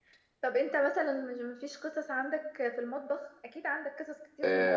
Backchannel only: No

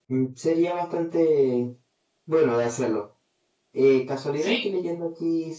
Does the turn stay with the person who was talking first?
Yes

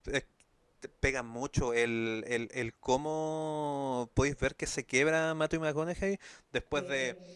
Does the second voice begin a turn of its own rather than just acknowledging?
No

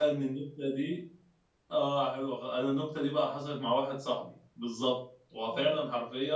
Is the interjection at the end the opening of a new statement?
No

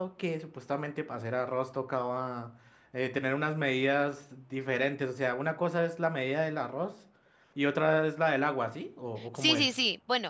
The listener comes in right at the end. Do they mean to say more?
Yes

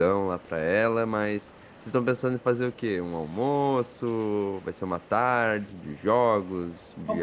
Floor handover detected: Yes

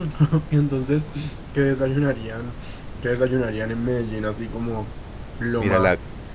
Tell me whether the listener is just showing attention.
No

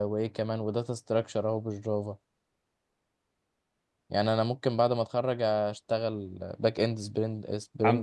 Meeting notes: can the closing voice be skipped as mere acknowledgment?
No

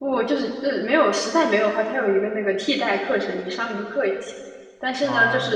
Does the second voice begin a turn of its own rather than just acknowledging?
No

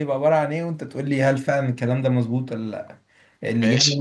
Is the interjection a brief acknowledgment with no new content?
Yes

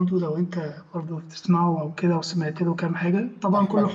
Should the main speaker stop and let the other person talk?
Yes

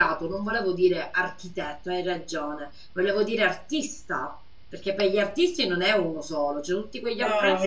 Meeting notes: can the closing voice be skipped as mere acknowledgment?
No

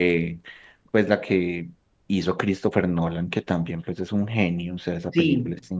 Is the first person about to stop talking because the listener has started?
Yes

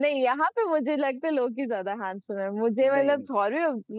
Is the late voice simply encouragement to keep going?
Yes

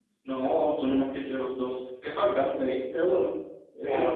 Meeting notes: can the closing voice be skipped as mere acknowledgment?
No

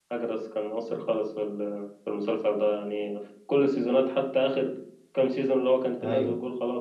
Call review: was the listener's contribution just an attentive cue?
Yes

